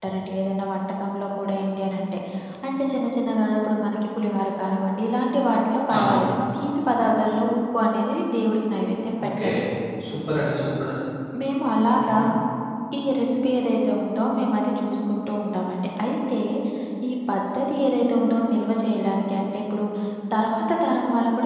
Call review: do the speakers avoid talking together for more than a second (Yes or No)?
Yes